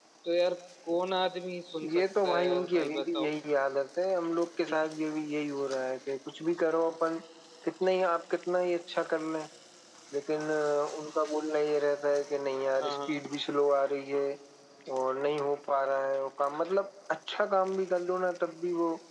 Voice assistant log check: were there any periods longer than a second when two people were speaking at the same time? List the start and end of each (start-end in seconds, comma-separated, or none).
1.9-3.3